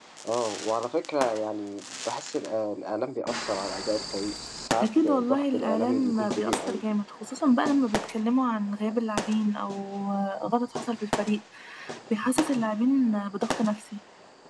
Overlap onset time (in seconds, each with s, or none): 4.8 s